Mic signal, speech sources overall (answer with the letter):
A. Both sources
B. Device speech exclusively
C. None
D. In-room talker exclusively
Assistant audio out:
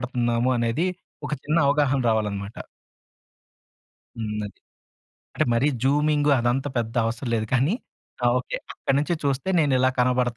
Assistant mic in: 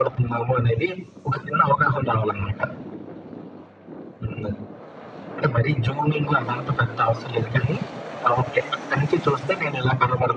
B